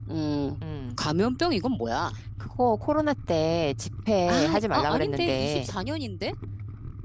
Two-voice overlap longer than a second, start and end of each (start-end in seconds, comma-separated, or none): 4.3-5.7